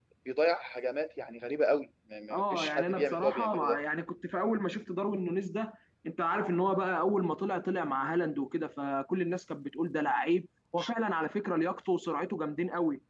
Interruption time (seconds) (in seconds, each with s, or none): 2.3 s